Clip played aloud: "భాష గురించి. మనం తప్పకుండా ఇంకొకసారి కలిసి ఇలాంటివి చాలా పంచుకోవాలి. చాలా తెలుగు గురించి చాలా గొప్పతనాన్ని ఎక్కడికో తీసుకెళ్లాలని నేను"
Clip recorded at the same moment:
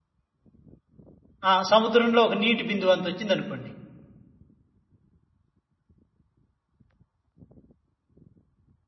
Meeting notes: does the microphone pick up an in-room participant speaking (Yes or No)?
Yes